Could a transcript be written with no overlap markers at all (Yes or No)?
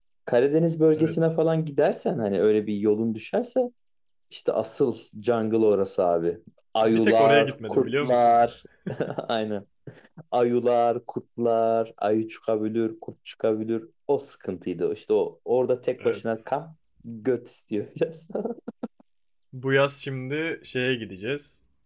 No